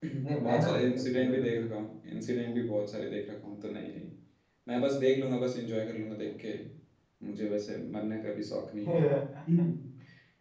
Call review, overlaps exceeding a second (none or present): present